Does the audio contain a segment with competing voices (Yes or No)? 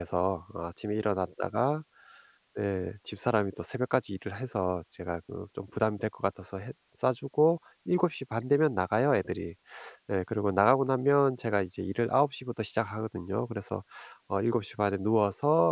No